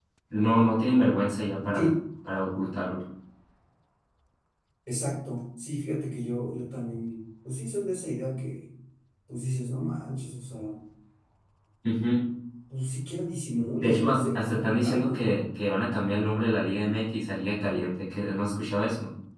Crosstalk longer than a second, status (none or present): present